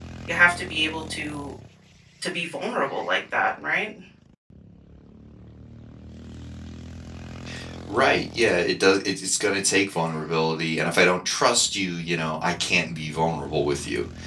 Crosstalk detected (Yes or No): No